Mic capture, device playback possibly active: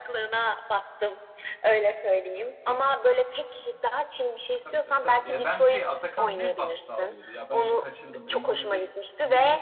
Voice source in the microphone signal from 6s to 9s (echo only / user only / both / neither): both